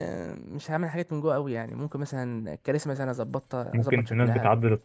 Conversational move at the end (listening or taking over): taking over